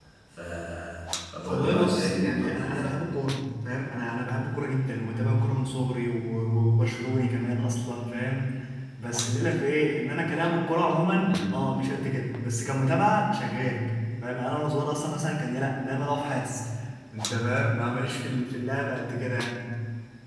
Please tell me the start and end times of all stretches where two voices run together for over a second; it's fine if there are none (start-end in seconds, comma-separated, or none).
1.5-2.9